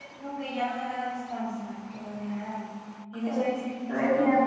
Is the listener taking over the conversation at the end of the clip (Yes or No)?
Yes